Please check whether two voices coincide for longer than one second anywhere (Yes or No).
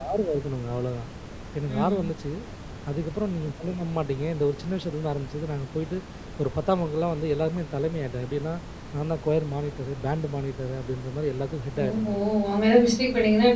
No